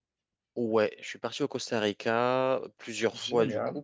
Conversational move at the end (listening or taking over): listening